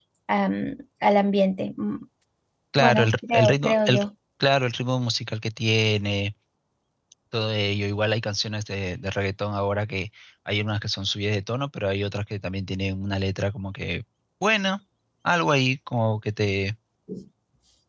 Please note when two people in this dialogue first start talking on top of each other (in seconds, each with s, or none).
2.8 s